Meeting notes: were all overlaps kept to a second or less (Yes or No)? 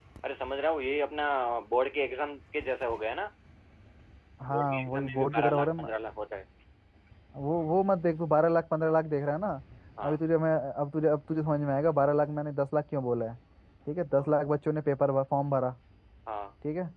No